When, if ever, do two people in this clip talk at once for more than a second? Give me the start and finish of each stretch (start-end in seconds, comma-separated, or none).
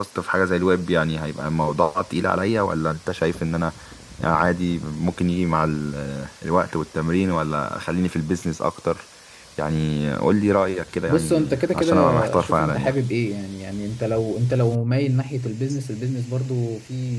11.1-12.9